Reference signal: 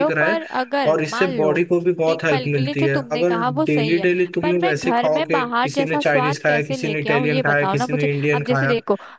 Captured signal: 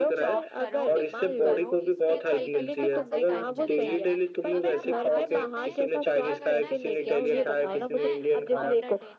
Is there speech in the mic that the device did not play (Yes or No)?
Yes